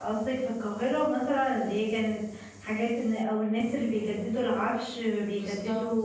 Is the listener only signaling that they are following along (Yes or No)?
Yes